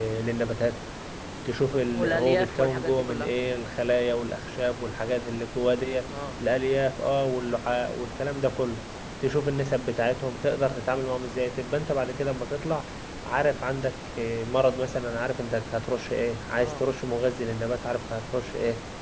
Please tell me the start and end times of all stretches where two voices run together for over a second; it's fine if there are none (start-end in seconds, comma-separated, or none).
1.9-3.3